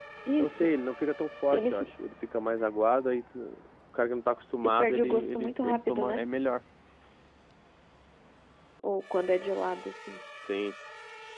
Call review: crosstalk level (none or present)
present